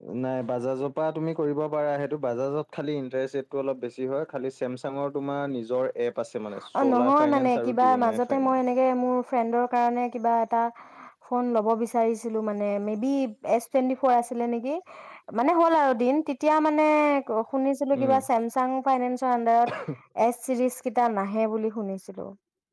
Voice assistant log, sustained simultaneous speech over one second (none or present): present